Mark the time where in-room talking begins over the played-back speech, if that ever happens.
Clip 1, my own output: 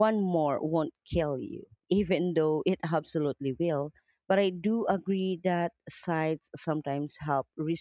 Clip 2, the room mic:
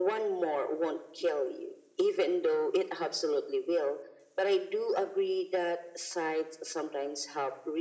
none

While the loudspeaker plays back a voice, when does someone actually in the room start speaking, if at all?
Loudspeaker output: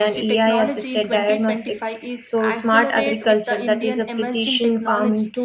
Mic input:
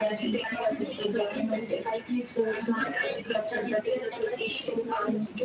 none

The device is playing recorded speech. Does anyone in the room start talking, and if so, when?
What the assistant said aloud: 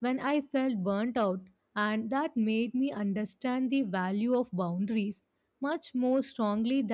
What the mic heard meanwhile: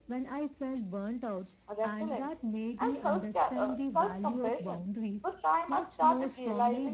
1.8 s

